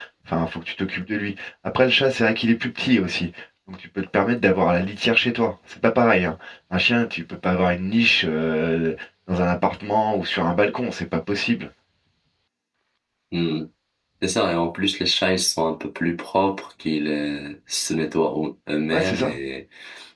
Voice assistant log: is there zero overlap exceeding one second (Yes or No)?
Yes